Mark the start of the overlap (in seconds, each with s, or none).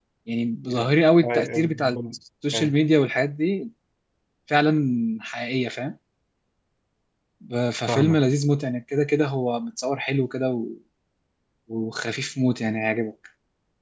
0.6 s